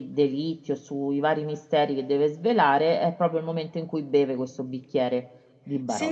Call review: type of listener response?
taking over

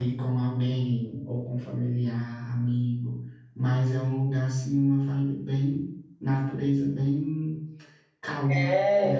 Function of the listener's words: taking over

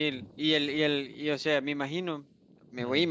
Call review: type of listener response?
listening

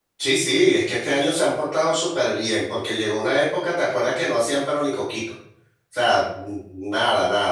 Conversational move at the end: listening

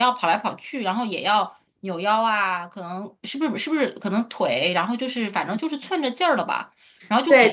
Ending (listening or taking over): taking over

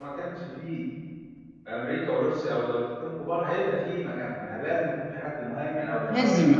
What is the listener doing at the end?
taking over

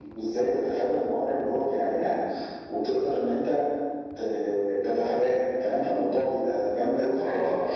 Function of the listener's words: listening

